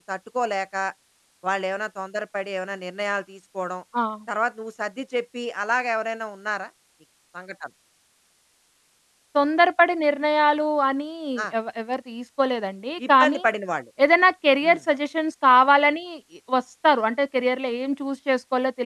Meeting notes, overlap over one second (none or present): none